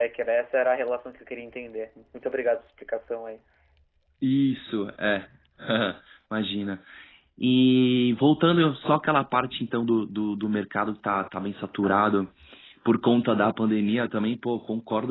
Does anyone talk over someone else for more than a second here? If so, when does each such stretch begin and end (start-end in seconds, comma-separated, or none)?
none